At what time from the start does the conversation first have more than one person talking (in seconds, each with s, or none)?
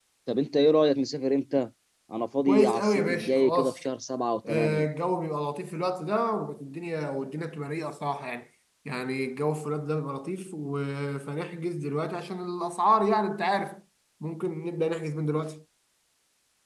2.5 s